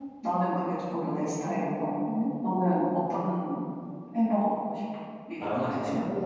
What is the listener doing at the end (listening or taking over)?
taking over